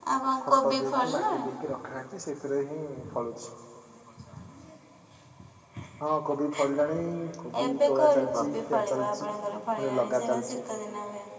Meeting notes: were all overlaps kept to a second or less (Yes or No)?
No